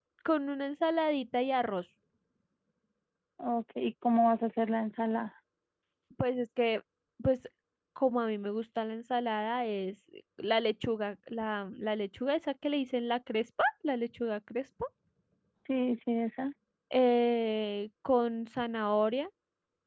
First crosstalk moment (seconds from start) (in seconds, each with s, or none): none